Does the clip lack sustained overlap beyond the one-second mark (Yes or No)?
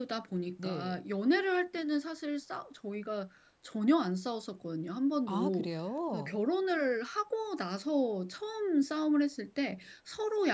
Yes